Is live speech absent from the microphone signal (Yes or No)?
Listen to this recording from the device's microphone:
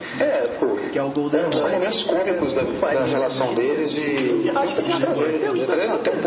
No